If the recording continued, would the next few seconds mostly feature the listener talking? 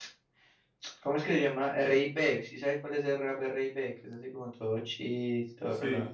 Yes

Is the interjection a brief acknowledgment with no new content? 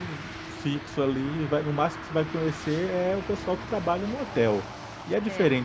Yes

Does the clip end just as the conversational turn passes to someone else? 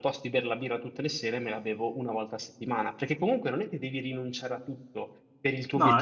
No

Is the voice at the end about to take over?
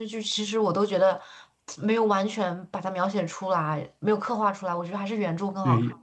Yes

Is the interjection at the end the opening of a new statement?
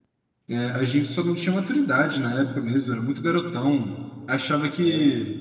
No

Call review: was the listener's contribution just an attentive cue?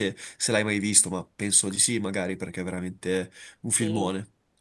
No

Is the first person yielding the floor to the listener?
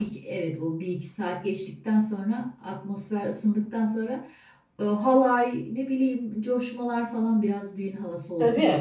Yes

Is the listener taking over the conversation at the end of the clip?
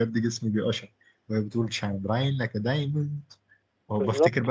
No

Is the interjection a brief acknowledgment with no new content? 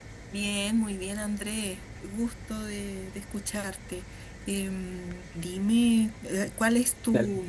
No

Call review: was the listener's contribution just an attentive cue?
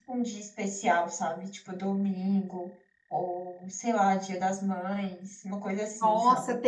No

